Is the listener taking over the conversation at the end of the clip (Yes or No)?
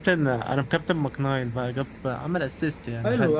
Yes